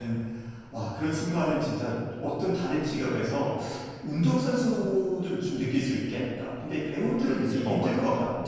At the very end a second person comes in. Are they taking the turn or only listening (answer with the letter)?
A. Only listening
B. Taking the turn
B